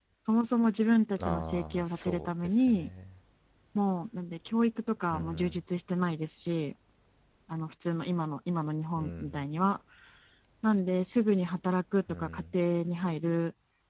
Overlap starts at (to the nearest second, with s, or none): 1 s